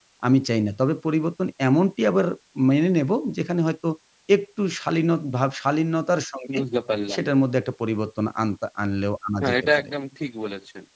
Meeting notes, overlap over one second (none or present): none